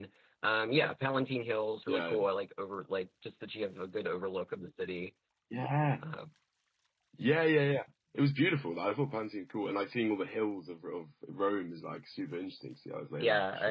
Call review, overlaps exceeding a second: none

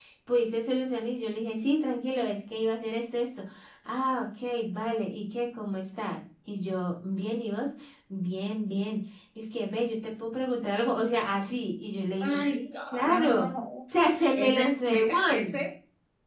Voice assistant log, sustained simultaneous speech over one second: present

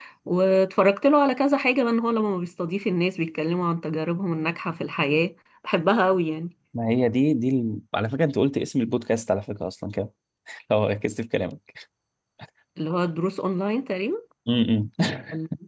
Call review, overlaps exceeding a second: none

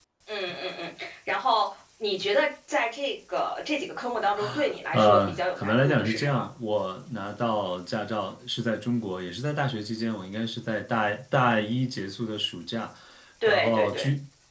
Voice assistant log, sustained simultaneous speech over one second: present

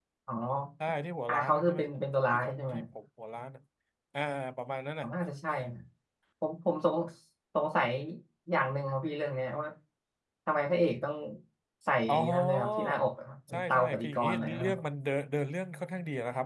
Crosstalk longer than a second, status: present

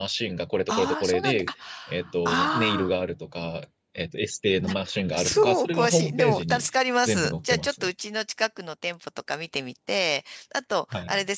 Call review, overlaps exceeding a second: present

